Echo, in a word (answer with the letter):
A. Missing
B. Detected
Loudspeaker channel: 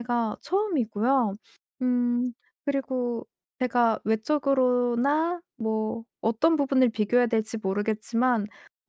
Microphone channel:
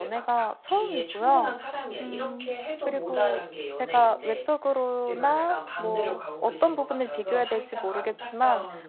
B